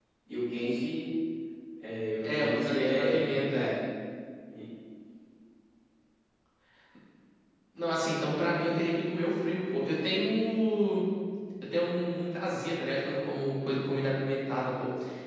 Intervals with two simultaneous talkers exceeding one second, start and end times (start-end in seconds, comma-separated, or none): 2.2-3.8